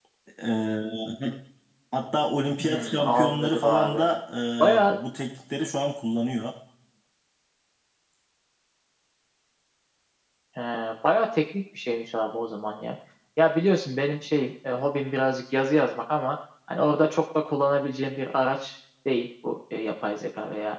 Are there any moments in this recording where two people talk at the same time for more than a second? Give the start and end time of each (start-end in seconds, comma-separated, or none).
2.6-4.1